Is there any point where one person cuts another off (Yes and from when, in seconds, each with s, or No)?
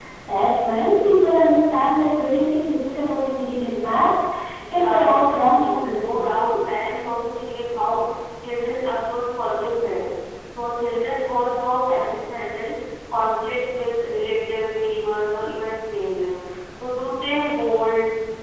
Yes, from 4.7 s